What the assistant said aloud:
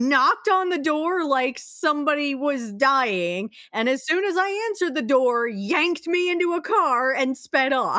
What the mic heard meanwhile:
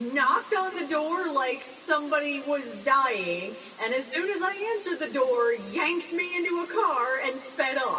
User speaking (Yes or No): No